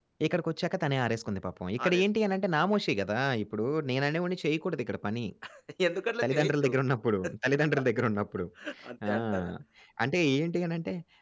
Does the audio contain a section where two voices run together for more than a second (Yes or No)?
No